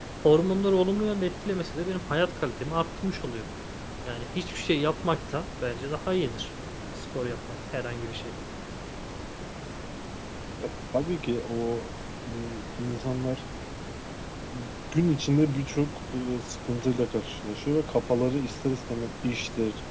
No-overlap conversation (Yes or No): Yes